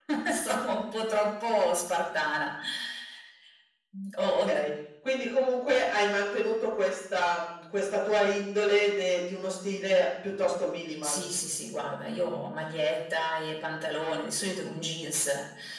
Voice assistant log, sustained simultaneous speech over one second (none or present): none